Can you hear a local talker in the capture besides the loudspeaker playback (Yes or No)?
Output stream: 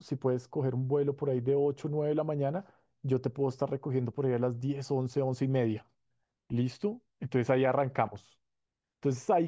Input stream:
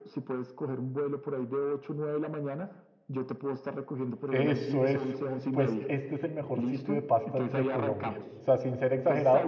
Yes